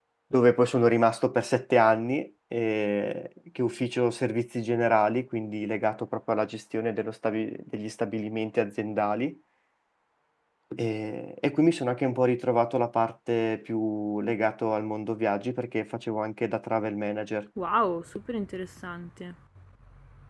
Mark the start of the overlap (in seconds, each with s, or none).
none